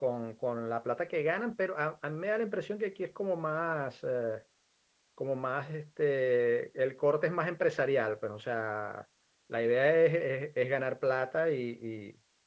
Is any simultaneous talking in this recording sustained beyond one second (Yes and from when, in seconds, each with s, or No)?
No